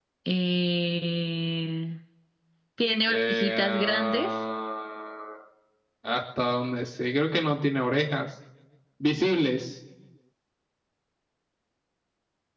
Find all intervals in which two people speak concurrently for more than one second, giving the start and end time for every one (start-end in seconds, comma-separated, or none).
3.0-4.3